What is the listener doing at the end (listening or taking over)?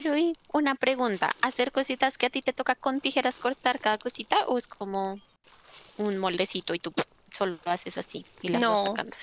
taking over